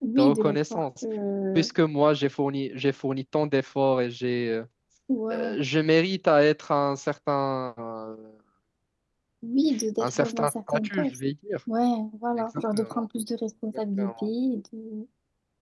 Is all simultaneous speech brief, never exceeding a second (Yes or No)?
No